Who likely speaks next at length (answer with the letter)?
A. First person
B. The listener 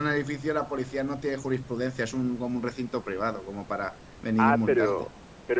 B